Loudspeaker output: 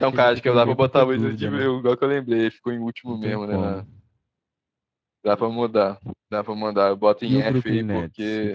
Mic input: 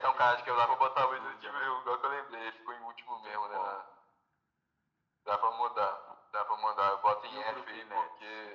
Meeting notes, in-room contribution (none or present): none